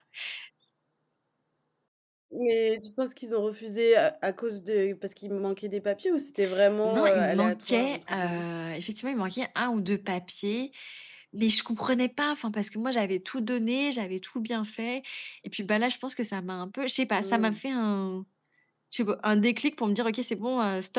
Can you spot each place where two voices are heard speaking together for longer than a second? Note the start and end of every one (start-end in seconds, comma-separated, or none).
6.8-8.4